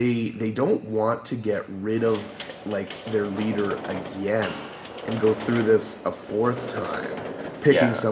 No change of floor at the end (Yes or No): Yes